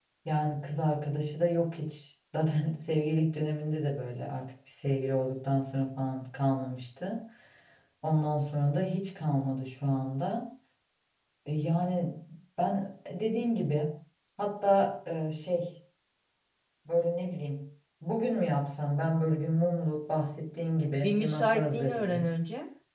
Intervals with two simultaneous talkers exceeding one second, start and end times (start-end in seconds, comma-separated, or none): 21.0-22.3